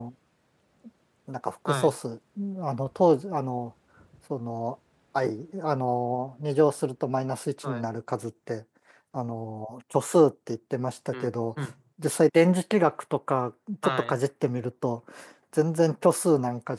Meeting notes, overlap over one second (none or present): none